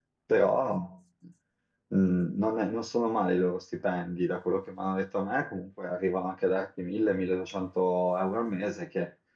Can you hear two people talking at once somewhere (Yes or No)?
No